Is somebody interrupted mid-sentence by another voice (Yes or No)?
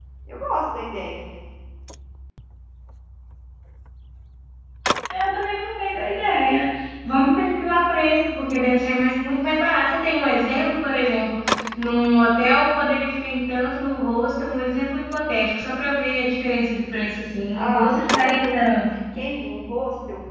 Yes